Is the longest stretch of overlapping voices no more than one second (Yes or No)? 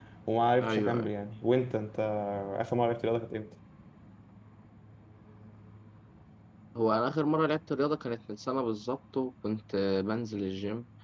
Yes